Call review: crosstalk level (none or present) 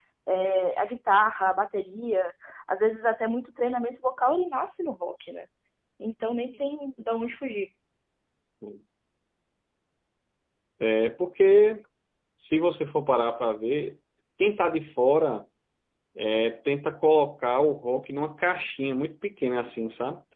none